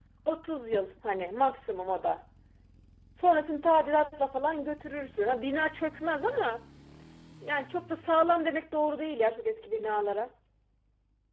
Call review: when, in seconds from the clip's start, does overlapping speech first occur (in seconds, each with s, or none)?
none